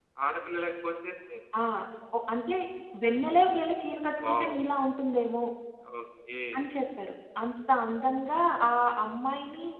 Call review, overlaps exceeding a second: none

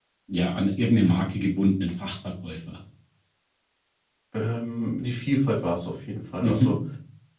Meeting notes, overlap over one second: none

